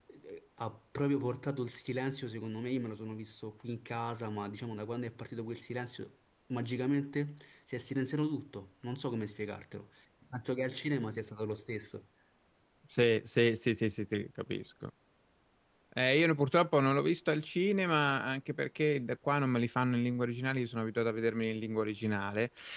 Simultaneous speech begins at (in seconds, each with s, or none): none